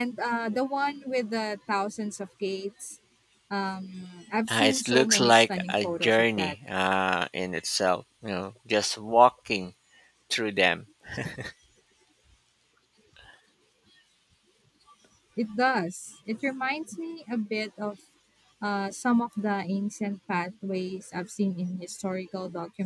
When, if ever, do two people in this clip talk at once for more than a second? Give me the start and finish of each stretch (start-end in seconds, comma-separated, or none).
4.5-6.5